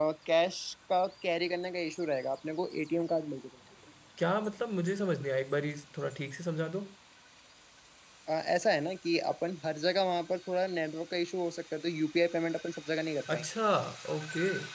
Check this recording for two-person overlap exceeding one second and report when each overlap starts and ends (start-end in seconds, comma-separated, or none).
none